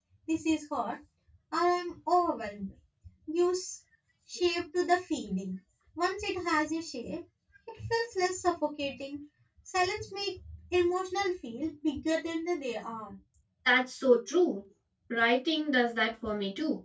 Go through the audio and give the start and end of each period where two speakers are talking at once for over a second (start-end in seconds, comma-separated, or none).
none